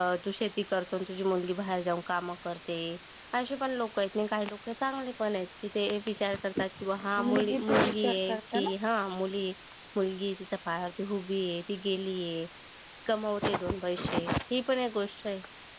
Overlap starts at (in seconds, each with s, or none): 7.2 s